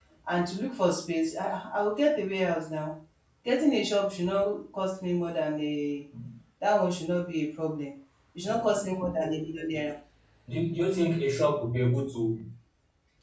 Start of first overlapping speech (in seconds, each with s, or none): none